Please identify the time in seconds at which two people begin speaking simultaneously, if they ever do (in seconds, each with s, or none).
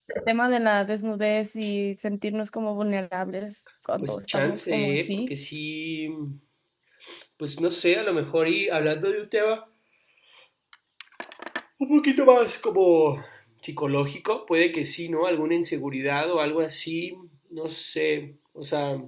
4.0 s